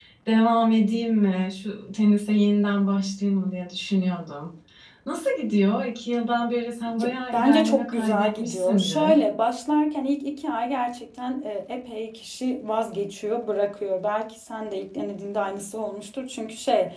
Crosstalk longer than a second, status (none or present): present